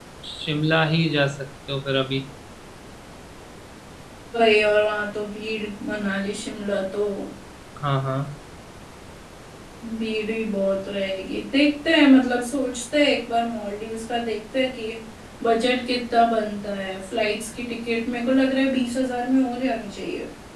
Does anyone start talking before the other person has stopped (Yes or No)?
No